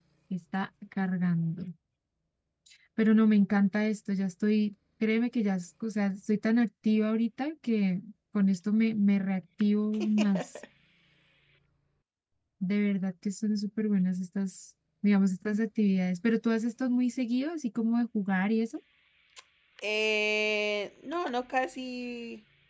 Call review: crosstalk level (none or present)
none